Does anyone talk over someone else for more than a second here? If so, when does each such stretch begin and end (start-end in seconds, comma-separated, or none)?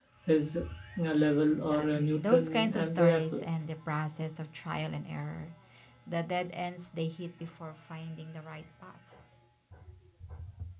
1.5-3.4